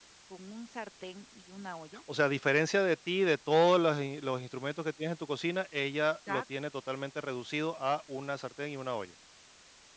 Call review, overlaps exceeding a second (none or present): none